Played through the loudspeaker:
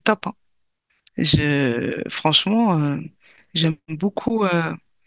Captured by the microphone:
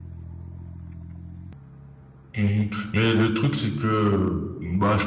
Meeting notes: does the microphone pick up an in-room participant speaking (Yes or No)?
Yes